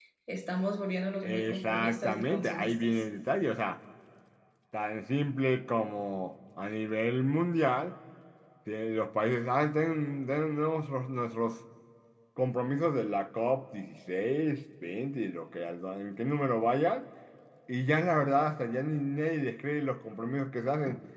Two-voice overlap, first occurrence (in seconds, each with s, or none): 1.2 s